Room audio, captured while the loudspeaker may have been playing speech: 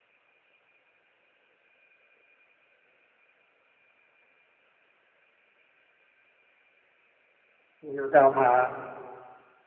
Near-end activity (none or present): present